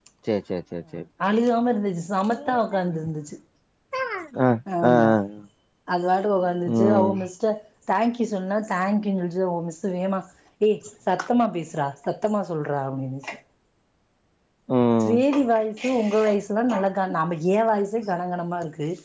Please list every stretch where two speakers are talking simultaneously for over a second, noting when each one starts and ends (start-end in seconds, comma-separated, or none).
none